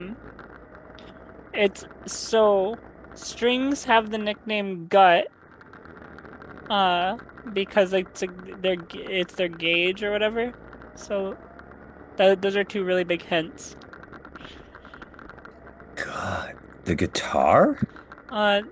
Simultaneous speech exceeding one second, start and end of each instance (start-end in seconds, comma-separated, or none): none